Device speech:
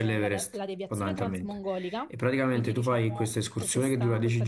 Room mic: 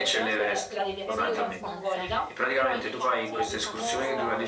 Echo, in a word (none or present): present